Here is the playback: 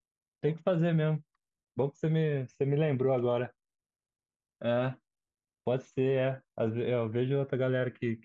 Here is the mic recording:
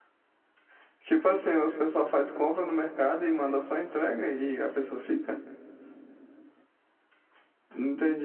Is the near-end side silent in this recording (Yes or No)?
No